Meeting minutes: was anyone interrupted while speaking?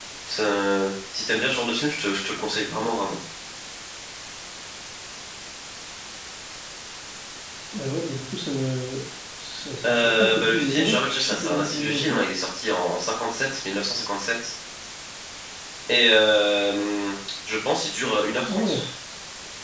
Yes, from 9.8 s

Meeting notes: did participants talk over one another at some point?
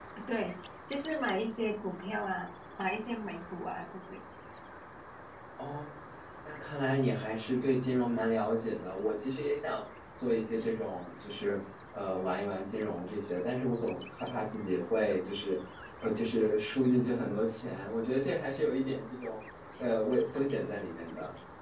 No

